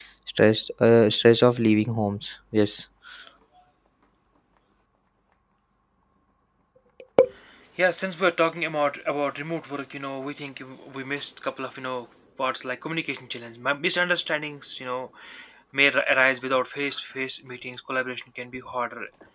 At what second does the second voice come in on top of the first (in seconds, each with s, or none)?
none